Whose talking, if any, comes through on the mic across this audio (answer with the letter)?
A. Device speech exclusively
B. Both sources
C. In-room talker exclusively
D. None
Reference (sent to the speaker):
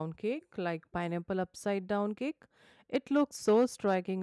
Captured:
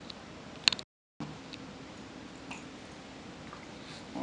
D